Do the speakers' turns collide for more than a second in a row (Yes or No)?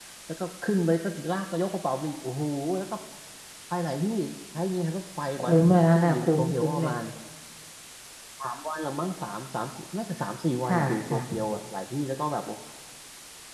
Yes